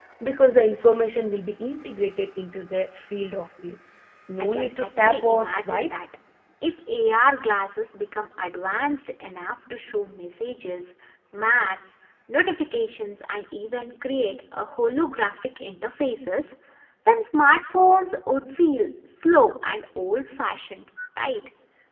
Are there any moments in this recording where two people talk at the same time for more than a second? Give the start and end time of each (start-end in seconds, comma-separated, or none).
4.5-5.9